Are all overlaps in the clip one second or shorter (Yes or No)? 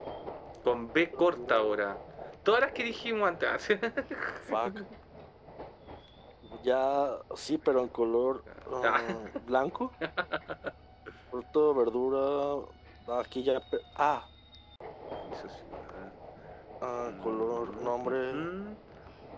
No